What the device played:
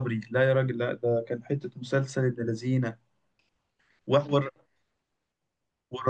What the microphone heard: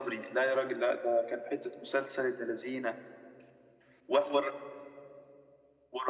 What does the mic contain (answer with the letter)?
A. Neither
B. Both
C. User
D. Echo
D